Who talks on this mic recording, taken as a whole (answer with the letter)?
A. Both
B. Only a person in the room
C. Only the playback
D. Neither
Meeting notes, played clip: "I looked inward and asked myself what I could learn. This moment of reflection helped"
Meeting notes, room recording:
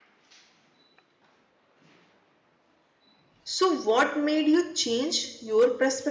B